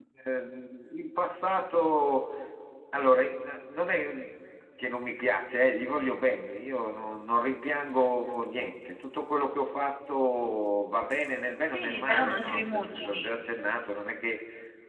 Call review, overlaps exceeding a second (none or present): present